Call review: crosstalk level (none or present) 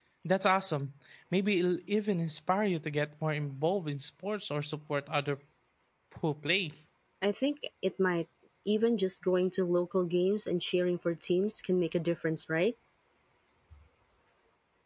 none